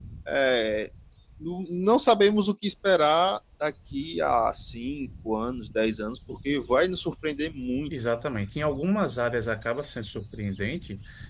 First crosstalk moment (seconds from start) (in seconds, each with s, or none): none